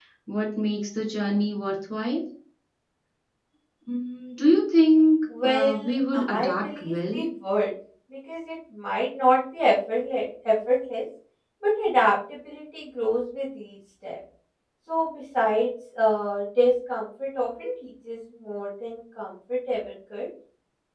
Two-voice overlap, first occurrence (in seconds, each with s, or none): 5.3 s